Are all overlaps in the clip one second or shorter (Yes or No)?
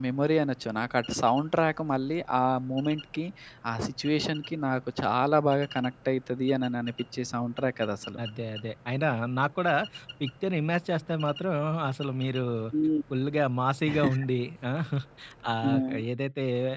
Yes